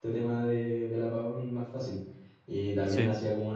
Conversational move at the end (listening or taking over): listening